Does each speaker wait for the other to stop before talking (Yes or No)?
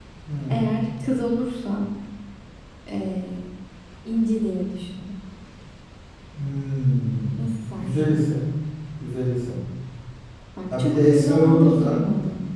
No